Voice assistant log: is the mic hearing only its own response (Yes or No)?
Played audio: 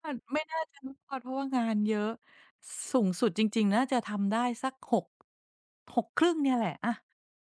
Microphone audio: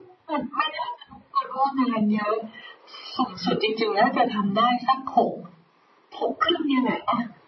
Yes